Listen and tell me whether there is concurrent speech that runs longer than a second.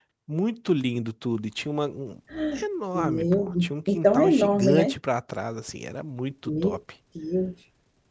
Yes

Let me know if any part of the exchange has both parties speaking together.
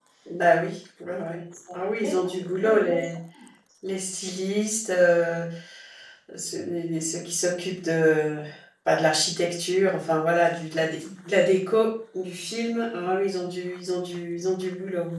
Yes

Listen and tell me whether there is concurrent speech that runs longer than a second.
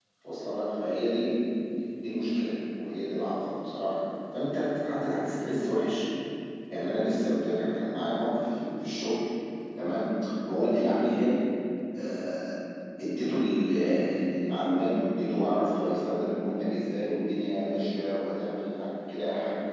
No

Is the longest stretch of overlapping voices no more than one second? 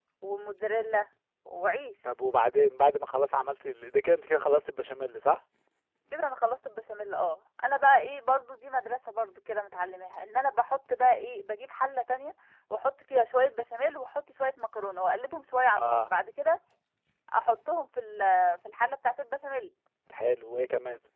Yes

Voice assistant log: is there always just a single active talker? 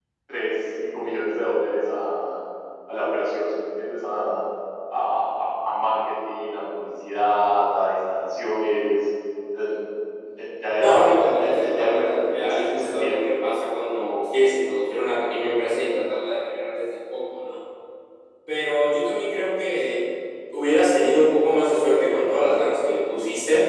No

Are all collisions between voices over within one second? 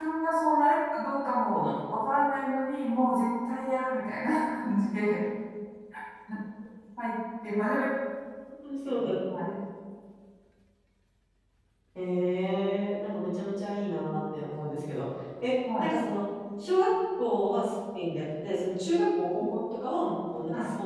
Yes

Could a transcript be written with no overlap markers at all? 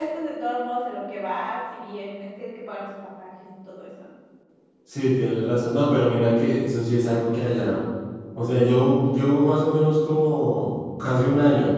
Yes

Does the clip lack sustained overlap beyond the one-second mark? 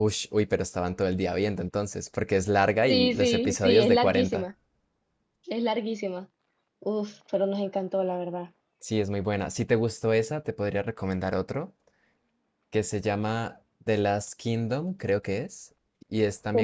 No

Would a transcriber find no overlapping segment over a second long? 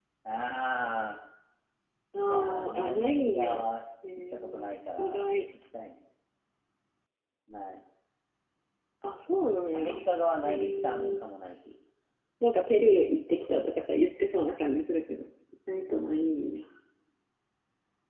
No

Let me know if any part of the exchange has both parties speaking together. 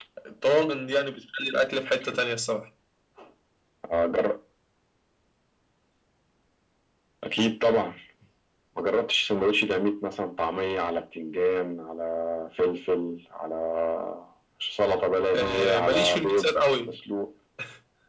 Yes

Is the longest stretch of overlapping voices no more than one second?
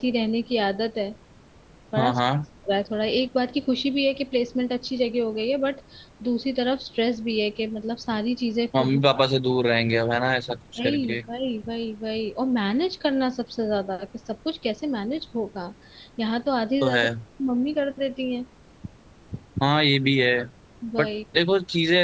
Yes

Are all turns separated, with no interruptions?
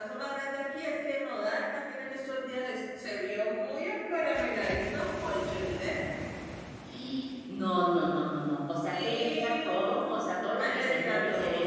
No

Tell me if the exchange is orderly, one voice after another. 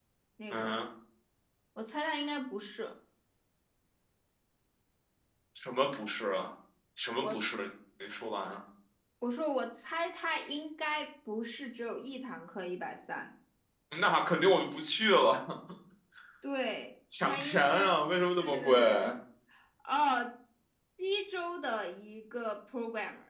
No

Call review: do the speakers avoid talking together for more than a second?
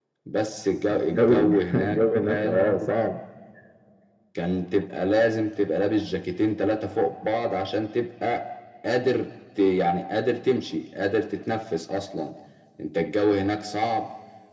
No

